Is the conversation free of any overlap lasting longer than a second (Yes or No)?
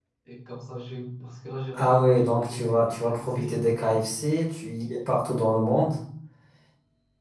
No